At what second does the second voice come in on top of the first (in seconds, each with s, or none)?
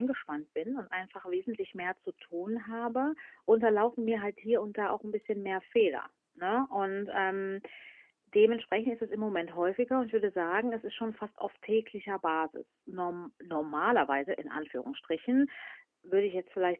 none